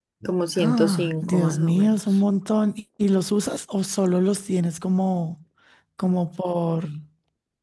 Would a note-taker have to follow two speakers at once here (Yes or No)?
Yes